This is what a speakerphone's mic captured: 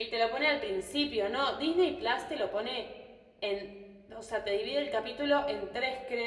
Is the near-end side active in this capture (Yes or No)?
Yes